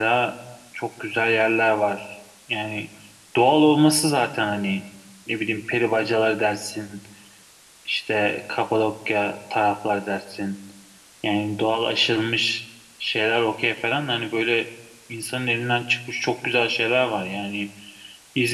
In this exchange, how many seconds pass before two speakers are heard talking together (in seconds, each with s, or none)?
none